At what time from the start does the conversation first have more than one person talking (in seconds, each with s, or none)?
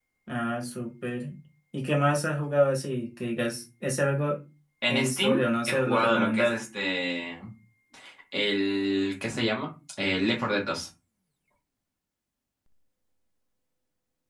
4.9 s